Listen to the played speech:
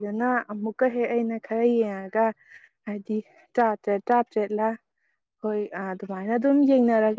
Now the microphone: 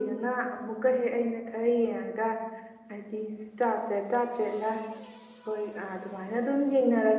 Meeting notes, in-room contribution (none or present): none